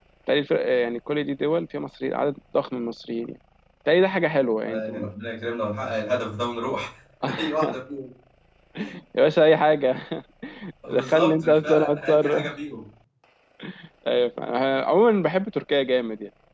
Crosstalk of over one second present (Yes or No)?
Yes